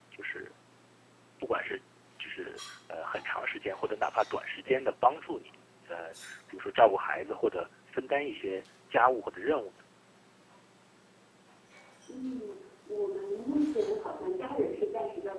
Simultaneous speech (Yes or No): No